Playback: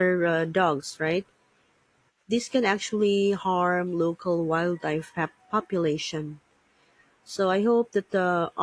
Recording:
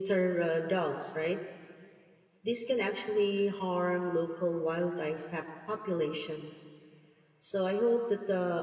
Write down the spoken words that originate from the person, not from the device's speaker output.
none

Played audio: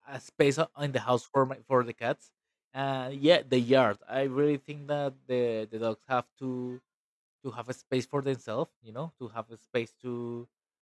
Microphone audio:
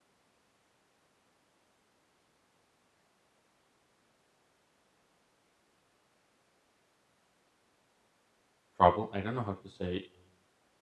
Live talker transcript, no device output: travel. I don't know how to say

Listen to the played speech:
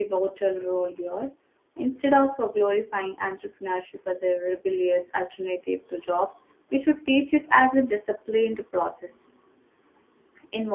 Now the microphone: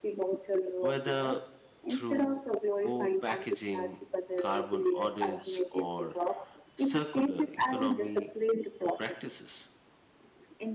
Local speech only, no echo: whether through co packaging, carbon audits, or circular economy practices.

